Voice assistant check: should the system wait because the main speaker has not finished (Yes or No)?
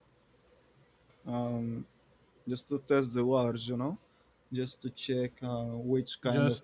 Yes